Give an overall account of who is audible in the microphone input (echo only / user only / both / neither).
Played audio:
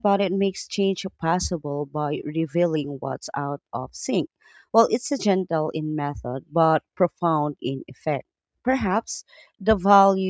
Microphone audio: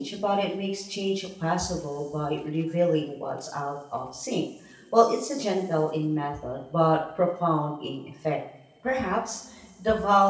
echo only